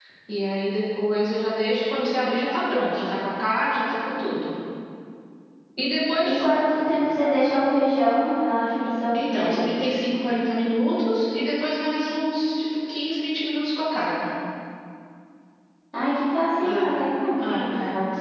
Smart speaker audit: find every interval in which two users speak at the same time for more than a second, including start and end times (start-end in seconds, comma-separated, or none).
none